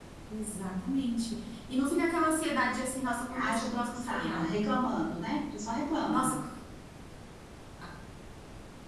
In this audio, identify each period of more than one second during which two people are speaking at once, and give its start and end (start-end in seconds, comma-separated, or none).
3.3-4.6